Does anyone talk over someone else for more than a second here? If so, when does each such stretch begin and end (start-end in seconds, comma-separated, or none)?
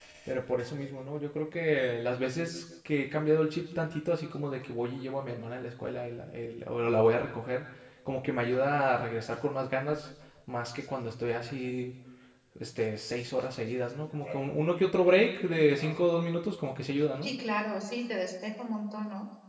none